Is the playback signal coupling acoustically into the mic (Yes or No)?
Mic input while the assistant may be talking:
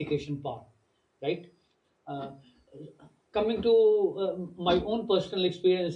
No